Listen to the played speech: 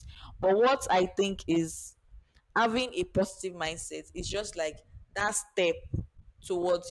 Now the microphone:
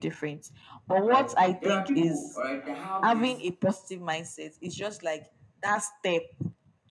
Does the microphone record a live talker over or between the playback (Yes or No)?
Yes